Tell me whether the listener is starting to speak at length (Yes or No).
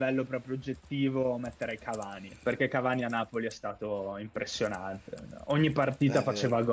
No